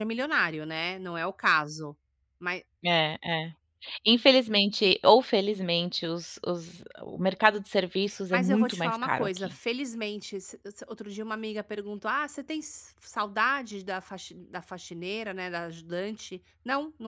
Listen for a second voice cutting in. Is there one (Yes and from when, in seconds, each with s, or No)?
Yes, from 8.3 s